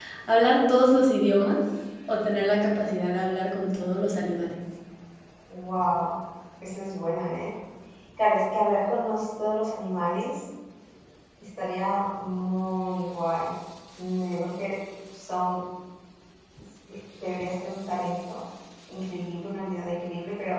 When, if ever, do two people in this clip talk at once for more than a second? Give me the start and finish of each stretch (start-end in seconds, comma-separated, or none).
none